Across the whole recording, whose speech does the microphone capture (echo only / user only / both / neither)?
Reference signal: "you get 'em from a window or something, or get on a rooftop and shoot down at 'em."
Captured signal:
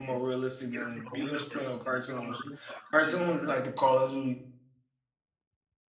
both